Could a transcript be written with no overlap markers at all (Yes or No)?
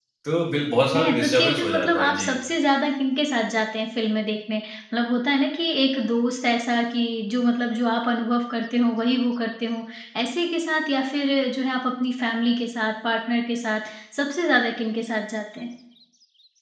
No